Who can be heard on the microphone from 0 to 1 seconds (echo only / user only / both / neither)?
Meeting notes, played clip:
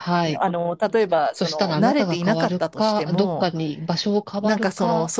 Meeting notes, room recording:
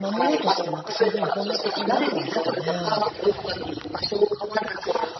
both